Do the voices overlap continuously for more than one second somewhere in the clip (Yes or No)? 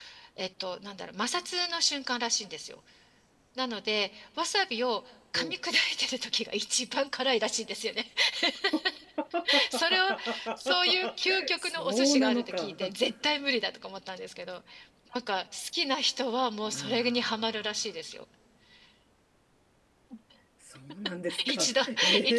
Yes